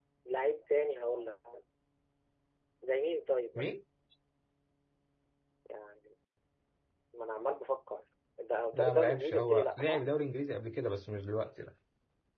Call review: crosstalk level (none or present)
present